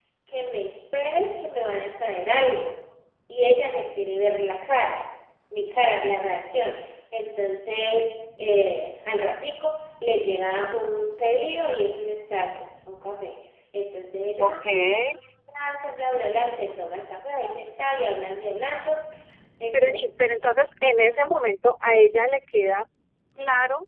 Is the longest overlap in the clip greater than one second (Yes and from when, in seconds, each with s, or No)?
No